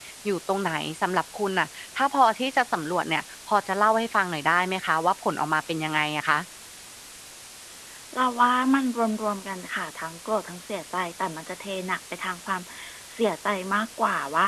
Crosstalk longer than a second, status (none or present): none